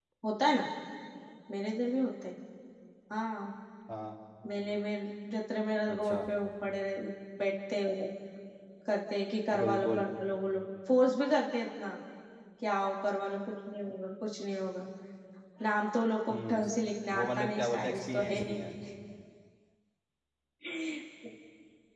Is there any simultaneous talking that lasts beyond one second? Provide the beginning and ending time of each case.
17.2-18.6

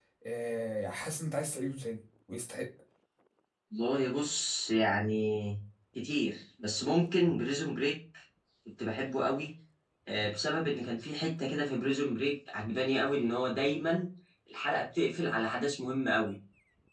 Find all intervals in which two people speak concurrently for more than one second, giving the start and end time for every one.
none

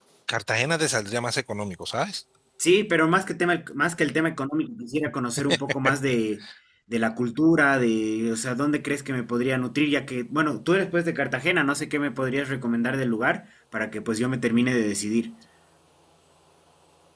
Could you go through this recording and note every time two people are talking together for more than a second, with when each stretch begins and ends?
none

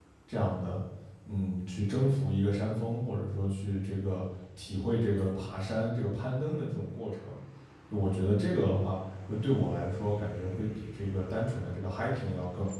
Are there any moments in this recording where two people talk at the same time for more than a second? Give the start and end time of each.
none

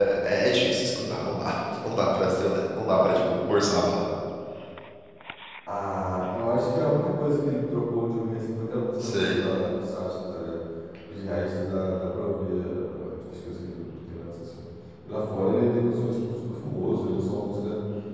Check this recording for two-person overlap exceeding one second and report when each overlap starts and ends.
none

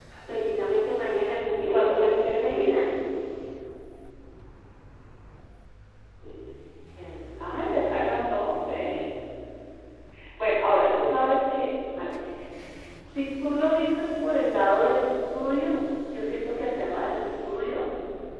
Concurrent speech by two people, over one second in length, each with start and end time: 1.6-2.9

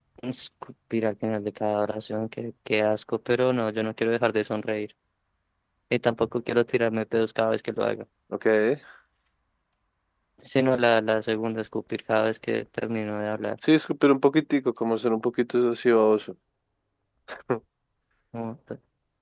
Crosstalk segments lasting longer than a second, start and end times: none

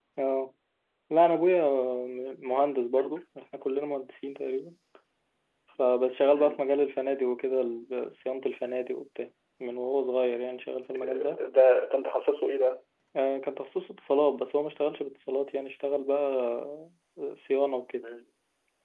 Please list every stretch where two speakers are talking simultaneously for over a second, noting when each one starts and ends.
none

